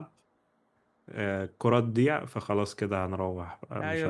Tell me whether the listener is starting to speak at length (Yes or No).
Yes